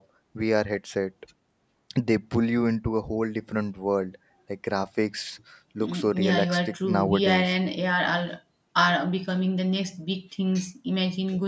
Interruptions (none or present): present